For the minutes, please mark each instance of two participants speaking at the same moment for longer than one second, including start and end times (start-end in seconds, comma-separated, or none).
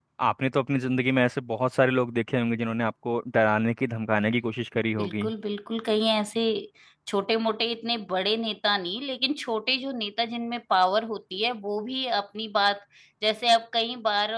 none